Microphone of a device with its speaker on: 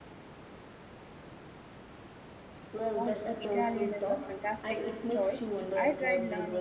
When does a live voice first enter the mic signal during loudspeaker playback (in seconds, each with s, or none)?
3.0 s